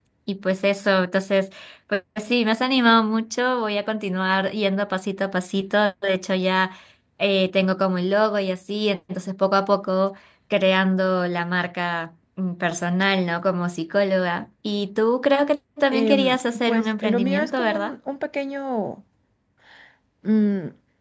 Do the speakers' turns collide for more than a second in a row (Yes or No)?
Yes